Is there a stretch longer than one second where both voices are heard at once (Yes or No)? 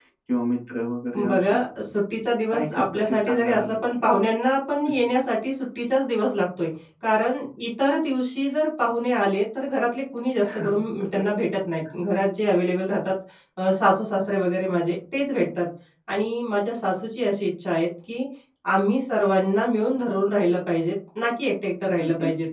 Yes